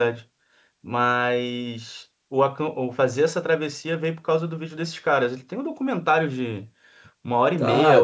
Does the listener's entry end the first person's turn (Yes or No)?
Yes